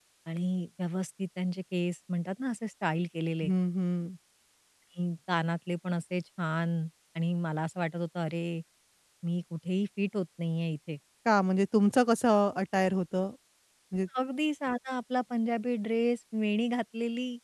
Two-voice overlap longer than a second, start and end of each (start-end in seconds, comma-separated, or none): none